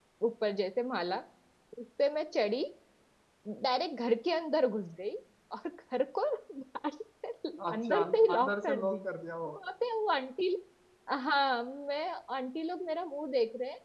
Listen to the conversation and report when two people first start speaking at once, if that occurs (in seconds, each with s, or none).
7.6 s